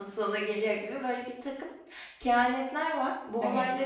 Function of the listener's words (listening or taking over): listening